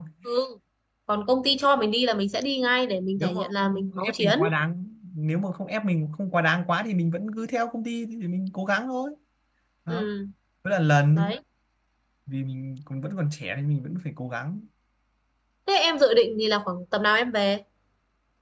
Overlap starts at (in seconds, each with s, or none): 3.2 s